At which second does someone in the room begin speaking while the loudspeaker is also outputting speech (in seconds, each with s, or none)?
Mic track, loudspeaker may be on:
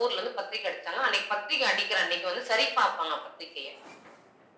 none